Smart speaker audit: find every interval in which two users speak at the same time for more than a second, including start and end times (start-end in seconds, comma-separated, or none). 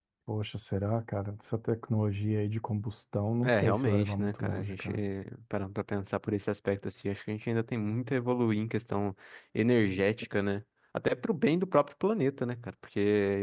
3.4-4.9